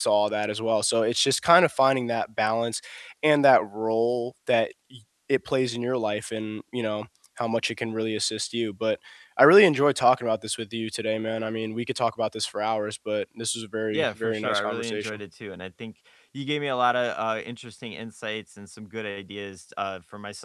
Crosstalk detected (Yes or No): Yes